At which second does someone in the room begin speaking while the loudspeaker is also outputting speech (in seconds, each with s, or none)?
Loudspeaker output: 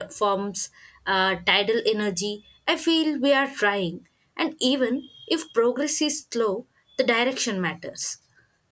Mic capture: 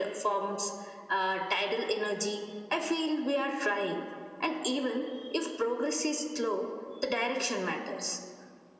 none